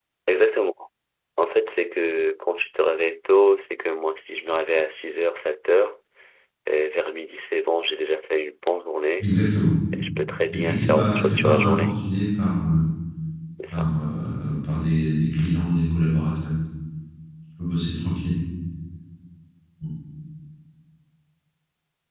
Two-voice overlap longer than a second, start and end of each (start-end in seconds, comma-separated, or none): 10.5-11.9